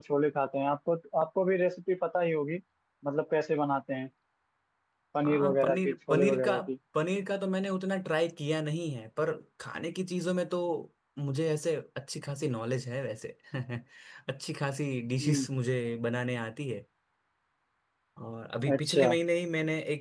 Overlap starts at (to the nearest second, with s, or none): 5 s